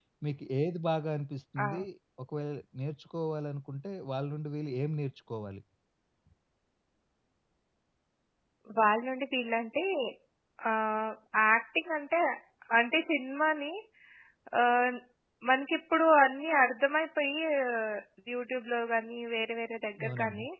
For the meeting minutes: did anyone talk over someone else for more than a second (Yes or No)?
No